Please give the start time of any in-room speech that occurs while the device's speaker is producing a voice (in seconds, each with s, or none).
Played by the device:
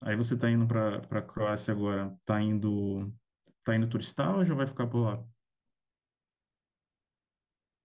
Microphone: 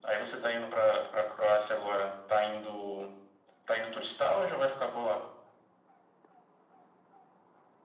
none